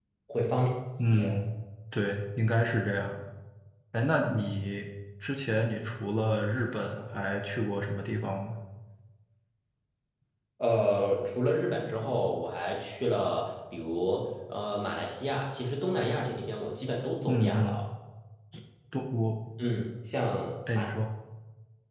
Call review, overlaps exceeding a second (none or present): none